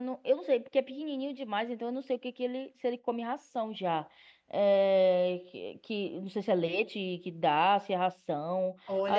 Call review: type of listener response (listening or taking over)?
taking over